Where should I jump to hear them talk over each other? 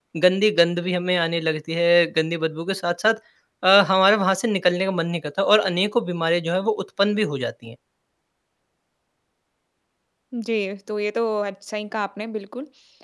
none

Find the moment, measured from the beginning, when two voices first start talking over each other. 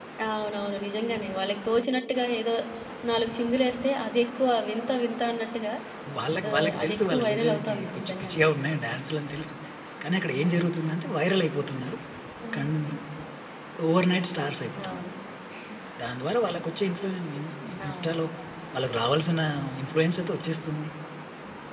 6.5 s

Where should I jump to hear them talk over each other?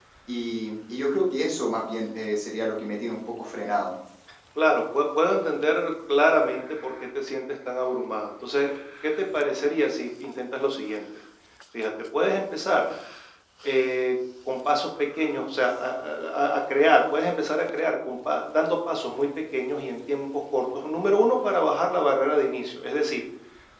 none

